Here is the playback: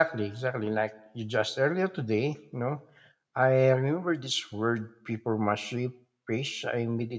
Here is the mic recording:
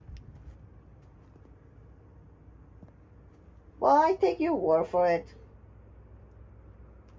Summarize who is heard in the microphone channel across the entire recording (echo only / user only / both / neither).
user only